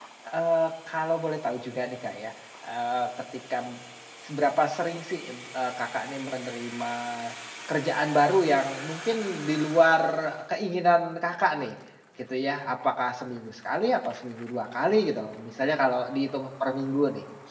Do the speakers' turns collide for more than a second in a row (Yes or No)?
No